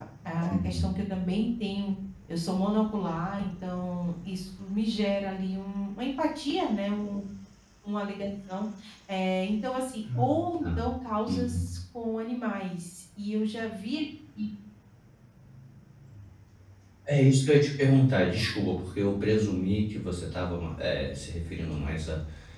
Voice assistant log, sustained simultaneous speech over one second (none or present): none